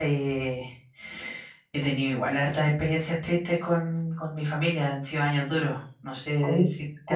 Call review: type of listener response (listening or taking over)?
taking over